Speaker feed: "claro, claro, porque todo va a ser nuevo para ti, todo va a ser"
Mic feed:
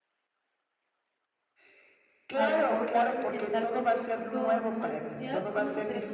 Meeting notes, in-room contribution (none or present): present